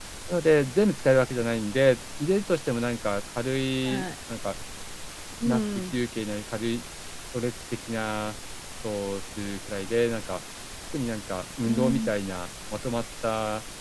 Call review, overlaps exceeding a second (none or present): none